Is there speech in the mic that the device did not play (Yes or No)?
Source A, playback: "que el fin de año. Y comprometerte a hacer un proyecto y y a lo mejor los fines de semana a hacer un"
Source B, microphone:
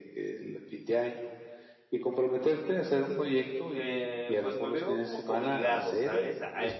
Yes